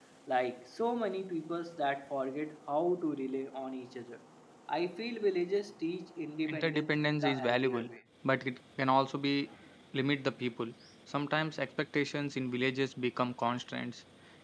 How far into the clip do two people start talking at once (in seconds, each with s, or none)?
6.5 s